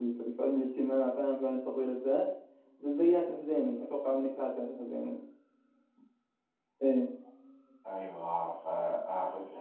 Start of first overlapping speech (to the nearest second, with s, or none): none